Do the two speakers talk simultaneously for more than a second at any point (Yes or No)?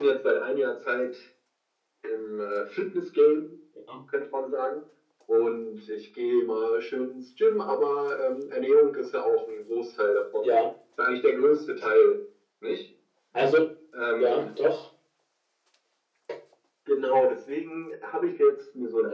No